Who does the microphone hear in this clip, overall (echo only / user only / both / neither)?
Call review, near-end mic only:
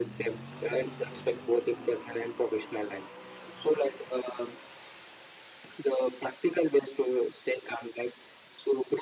echo only